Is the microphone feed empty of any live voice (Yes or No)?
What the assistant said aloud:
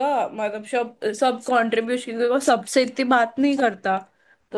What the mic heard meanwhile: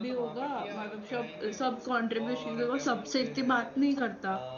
No